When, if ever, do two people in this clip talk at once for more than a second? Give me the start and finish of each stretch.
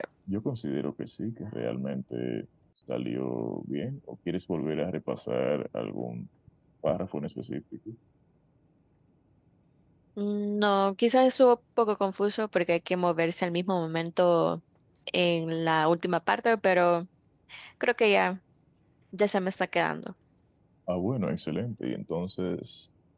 none

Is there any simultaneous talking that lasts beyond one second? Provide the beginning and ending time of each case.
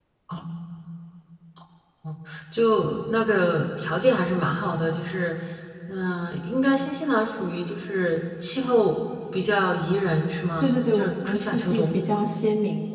10.6-12.0

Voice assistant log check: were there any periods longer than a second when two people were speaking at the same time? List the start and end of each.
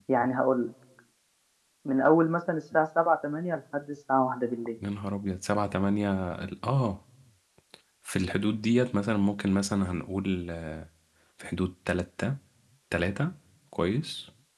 none

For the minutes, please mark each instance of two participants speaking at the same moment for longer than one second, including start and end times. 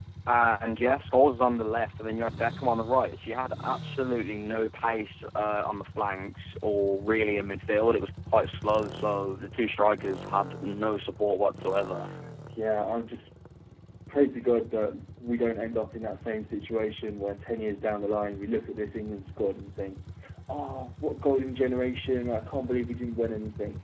none

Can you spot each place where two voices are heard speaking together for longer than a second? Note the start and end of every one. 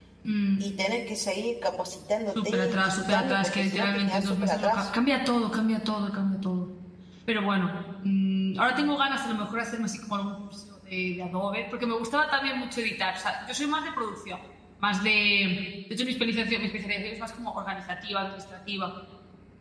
2.4-4.9

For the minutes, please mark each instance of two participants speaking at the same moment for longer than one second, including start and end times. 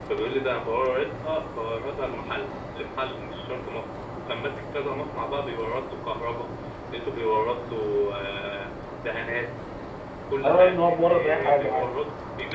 10.4-11.9

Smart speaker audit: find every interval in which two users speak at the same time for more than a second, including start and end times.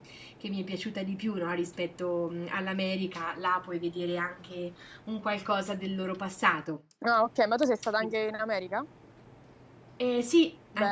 none

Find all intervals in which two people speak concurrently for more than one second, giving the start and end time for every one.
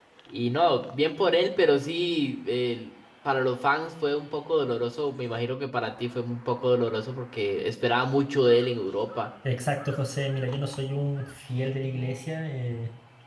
none

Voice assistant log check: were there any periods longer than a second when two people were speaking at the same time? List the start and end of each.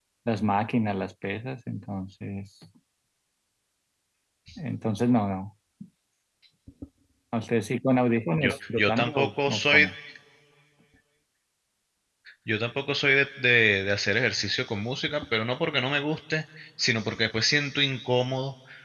8.4-9.9

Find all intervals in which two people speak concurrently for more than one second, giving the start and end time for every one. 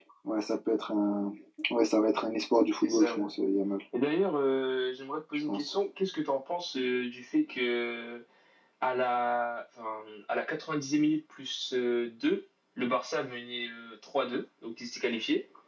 none

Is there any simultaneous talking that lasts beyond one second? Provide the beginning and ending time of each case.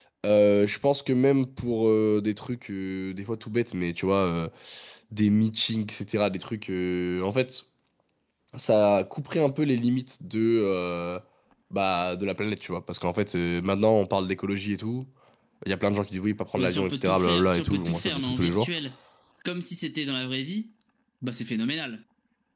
16.6-18.7

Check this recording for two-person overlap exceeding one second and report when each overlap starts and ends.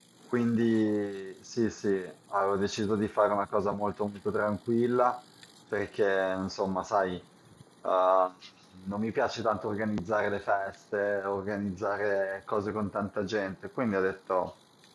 none

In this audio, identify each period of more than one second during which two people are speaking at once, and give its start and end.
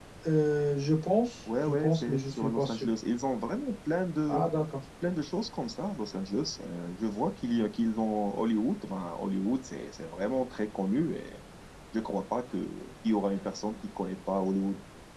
1.5-2.9

